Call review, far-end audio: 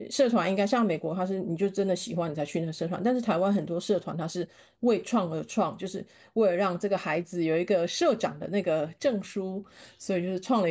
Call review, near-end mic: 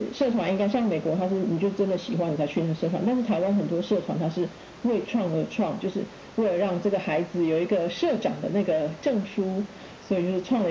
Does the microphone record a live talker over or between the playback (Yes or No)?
No